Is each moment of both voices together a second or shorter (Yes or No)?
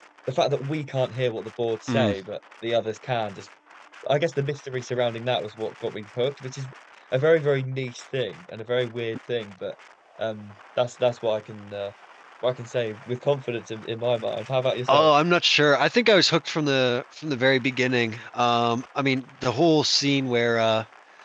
Yes